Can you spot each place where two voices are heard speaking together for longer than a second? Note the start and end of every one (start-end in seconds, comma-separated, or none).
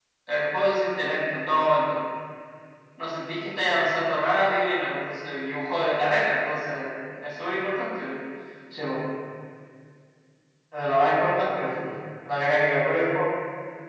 none